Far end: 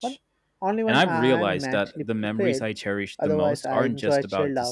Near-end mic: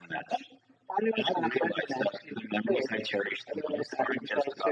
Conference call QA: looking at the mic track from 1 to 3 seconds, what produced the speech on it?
echo only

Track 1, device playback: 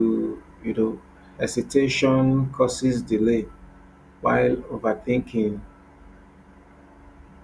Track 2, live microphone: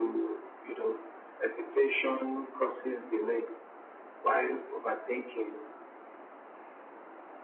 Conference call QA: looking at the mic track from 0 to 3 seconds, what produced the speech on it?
echo only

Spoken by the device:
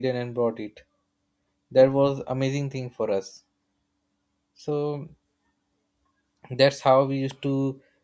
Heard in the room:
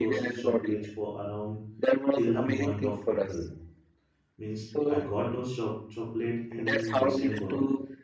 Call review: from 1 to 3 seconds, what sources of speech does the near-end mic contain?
both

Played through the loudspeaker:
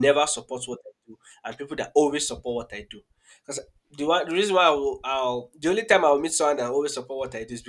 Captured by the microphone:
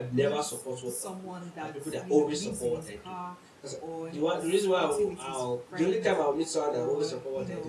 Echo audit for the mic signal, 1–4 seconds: both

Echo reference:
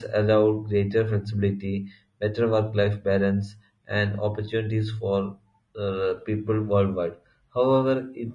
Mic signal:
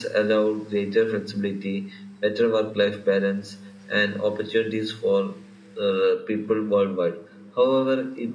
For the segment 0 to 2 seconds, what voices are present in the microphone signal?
echo only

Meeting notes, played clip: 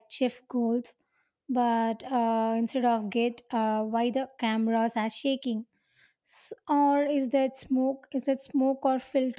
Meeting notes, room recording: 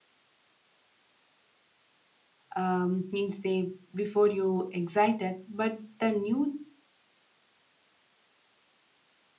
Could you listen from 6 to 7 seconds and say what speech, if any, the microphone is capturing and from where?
user only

